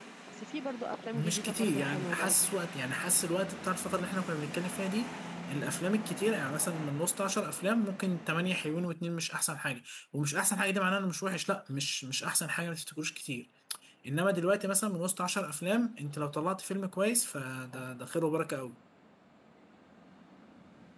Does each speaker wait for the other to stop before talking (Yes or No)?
No